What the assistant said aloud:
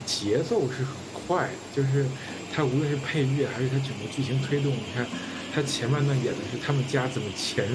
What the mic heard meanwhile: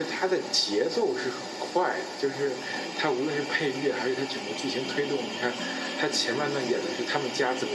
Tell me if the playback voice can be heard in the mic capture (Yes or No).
Yes